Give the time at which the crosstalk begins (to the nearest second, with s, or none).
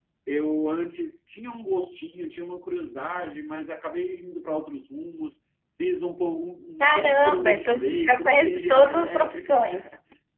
7 s